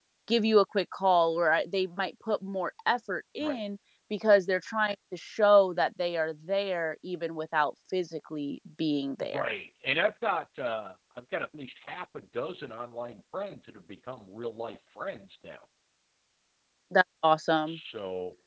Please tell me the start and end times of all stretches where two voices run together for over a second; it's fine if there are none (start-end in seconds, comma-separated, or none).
none